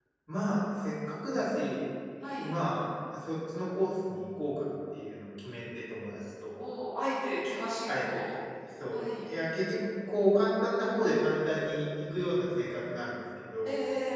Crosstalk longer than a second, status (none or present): none